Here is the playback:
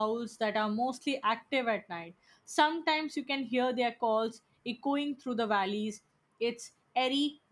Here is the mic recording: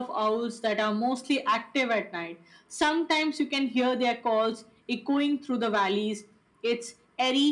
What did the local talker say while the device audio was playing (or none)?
none